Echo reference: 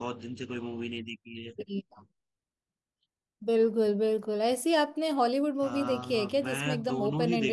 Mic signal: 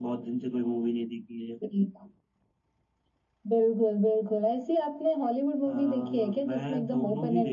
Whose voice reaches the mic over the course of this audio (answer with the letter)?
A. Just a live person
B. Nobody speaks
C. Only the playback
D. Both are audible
C